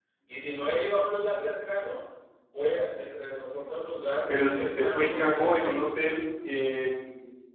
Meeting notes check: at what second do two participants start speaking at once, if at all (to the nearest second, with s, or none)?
4 s